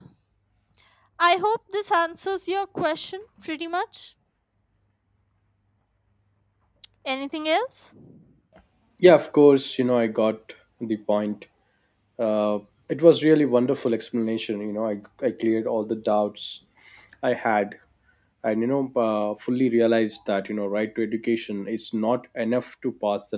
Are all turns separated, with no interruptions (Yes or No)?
Yes